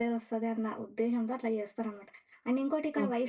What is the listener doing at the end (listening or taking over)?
listening